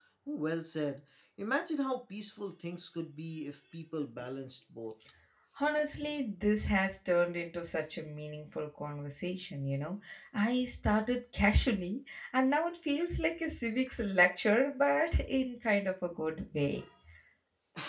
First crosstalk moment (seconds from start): none

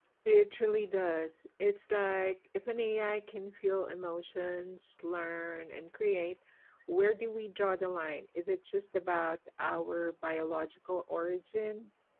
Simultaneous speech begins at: none

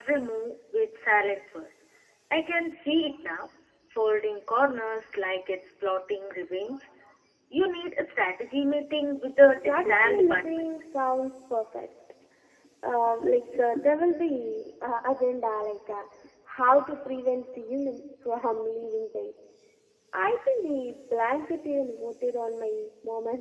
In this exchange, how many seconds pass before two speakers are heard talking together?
9 s

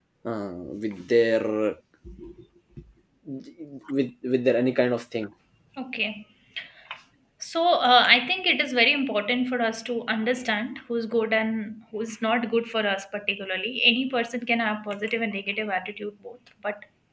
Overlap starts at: none

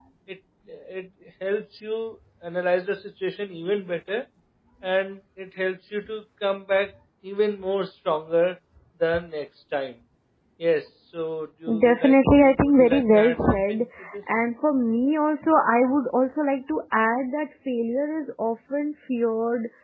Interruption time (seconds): 12 s

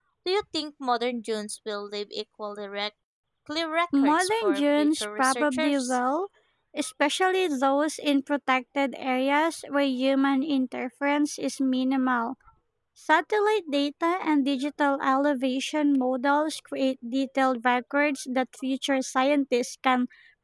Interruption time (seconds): 4 s

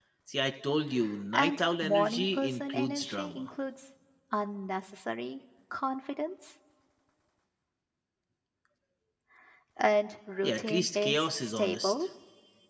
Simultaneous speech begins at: 1 s

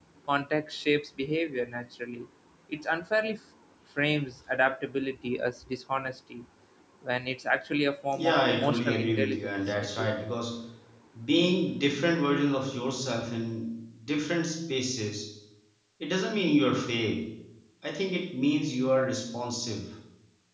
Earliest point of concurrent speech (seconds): 8 s

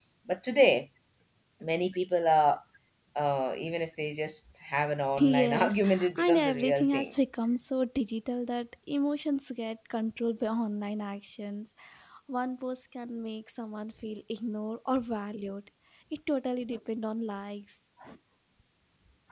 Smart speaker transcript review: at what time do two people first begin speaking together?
5 s

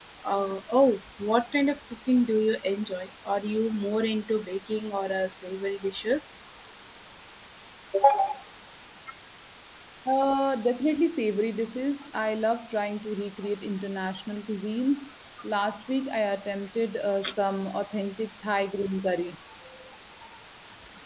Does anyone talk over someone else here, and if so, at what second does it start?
none

